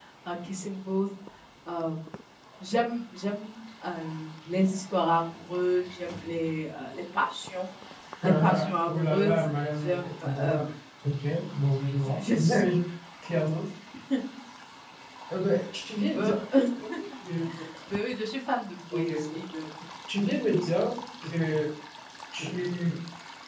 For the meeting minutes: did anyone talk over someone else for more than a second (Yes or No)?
Yes